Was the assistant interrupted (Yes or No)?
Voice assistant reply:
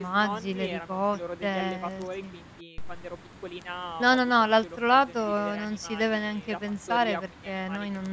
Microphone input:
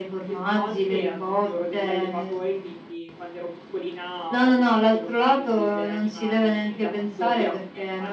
No